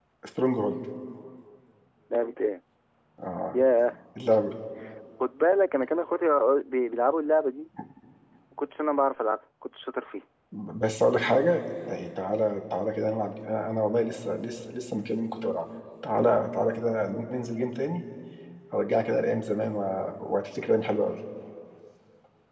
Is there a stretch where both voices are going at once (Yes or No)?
No